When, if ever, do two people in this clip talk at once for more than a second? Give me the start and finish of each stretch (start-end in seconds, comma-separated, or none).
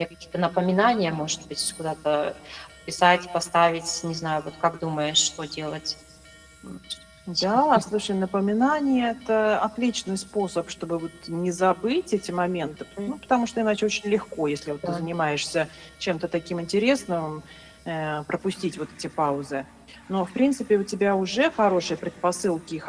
none